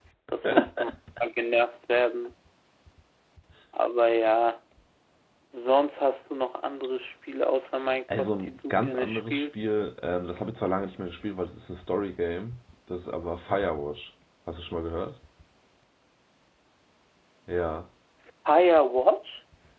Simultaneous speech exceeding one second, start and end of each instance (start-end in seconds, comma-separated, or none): 8.2-9.6